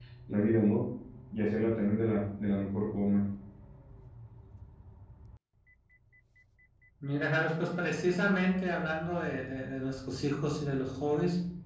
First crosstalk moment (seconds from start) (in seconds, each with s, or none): none